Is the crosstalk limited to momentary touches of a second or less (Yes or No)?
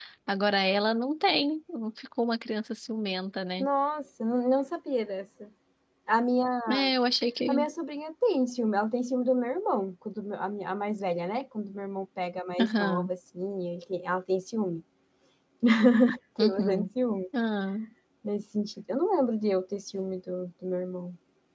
Yes